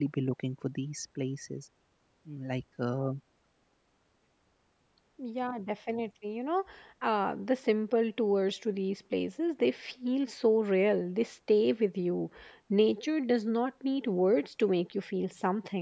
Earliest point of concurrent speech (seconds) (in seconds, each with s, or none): none